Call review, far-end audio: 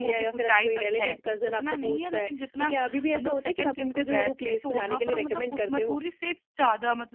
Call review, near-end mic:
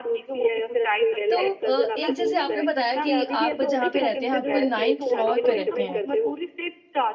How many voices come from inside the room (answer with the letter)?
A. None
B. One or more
B